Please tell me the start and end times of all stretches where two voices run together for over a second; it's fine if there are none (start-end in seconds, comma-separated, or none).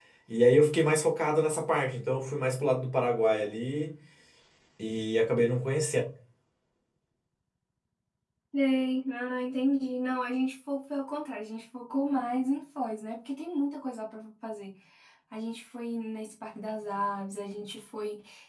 none